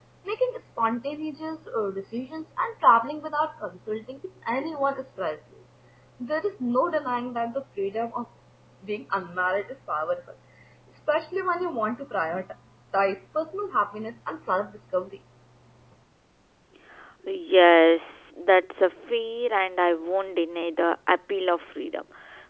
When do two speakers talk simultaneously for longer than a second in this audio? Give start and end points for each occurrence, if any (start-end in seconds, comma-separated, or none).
none